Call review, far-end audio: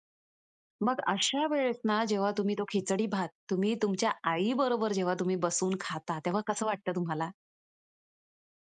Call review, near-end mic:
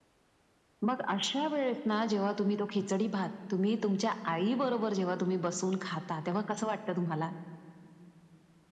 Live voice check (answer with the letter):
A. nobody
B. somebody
A